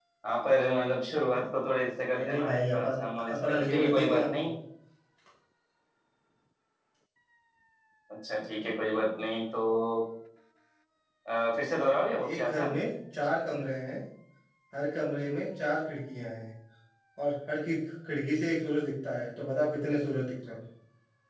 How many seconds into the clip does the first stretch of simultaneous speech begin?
2 s

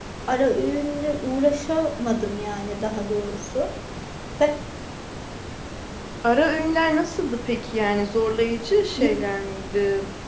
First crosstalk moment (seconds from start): none

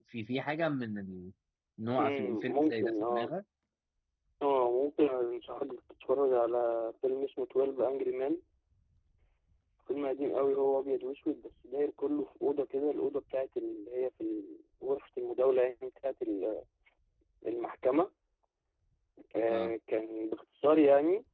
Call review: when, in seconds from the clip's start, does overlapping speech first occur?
2 s

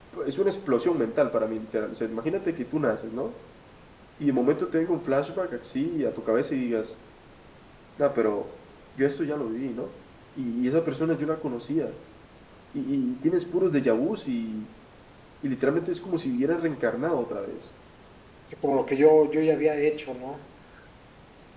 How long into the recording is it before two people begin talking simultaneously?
none

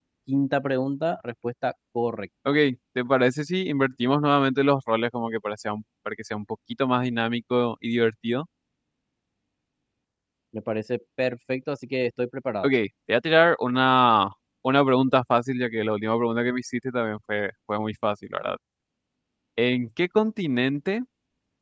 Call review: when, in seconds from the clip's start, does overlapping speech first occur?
none

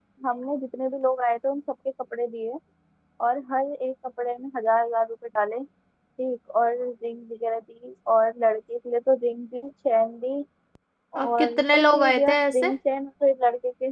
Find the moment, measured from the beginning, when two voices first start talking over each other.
11 s

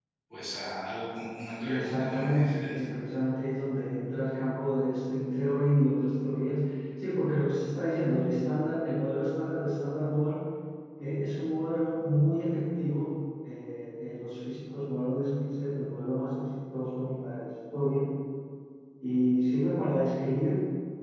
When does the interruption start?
2 s

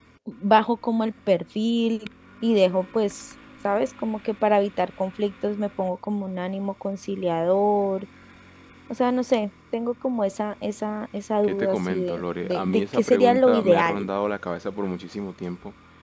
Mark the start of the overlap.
11 s

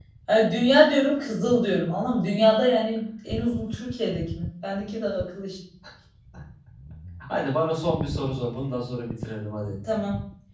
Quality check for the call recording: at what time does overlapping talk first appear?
none

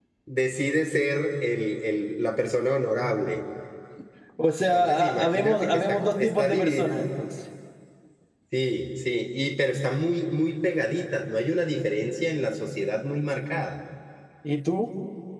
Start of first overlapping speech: 5 s

